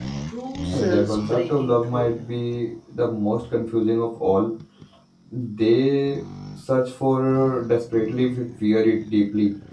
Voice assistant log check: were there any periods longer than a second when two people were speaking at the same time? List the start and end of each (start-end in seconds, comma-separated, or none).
0.7-2.4